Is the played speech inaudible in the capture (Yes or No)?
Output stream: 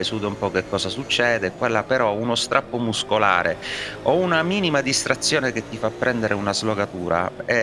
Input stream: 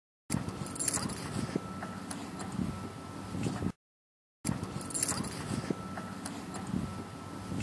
Yes